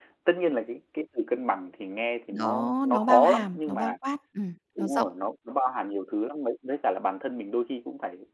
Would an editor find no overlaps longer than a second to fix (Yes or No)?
No